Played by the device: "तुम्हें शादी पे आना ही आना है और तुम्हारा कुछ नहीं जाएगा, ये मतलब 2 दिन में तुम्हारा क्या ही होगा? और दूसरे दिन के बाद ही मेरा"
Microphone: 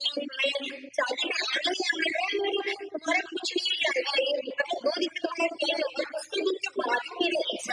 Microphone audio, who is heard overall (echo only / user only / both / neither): echo only